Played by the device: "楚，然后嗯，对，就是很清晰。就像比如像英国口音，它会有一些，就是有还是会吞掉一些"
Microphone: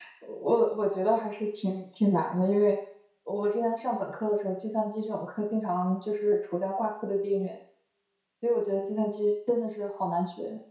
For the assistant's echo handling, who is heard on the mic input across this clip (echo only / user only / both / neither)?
user only